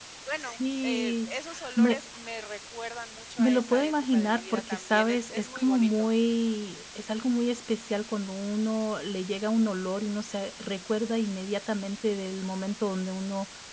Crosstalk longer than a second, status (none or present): present